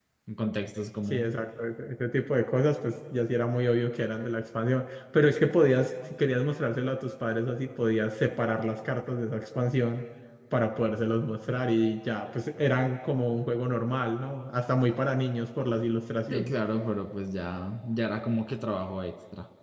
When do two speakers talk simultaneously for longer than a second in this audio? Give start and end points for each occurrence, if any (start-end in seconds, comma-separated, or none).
none